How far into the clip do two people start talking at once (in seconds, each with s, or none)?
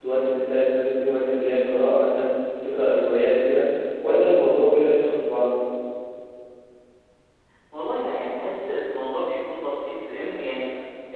none